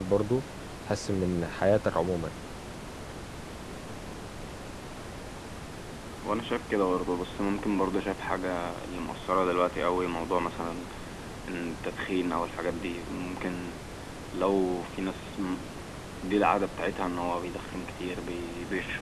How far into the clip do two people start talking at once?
none

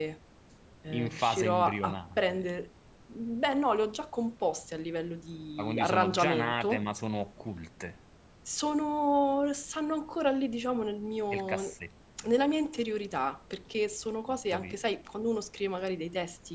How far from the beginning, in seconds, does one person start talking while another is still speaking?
0.9 s

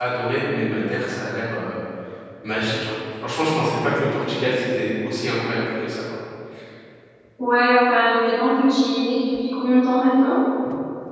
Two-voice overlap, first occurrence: none

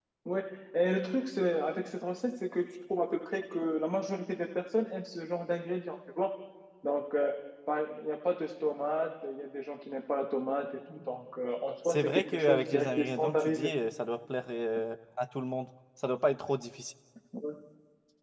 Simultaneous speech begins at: 11.8 s

